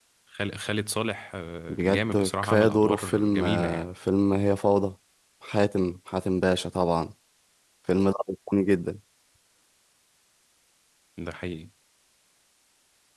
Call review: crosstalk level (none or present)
present